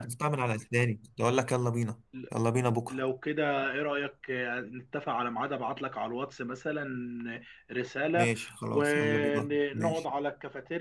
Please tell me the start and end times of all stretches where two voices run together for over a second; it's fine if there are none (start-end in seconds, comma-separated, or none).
8.7-10.0